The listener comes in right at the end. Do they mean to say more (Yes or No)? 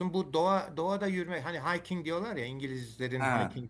No